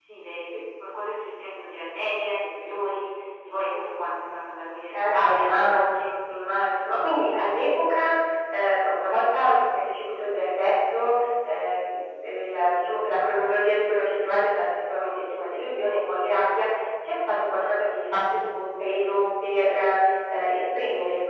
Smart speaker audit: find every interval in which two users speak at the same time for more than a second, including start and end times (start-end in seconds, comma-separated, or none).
4.9-6.1